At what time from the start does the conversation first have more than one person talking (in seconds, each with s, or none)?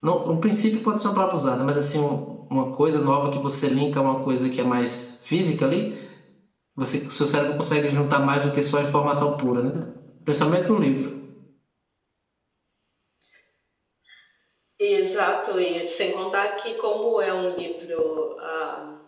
none